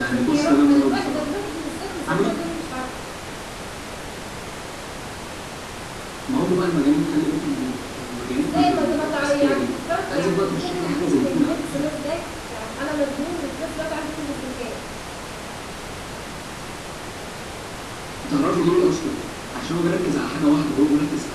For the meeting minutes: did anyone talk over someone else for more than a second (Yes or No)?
Yes